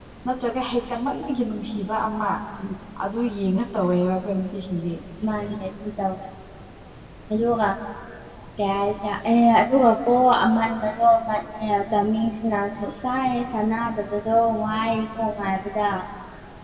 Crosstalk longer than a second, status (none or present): none